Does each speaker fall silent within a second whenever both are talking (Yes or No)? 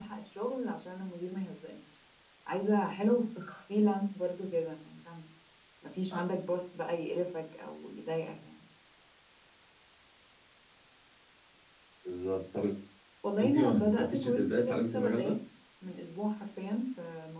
No